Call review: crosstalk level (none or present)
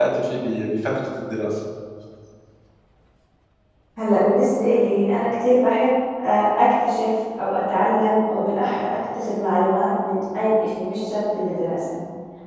none